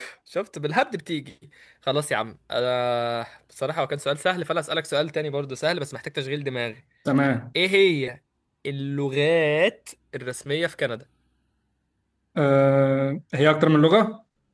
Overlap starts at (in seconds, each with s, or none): none